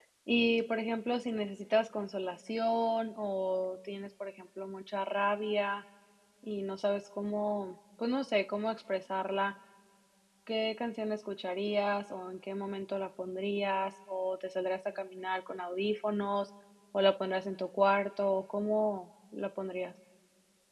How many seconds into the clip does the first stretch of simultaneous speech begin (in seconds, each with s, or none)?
none